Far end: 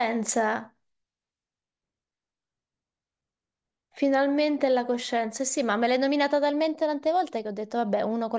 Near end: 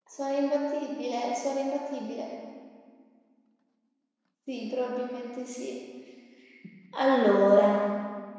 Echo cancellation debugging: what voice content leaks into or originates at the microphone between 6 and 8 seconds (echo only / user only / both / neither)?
user only